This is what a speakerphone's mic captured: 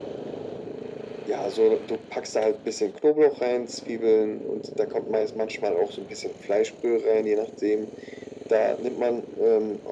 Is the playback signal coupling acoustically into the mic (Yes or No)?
Yes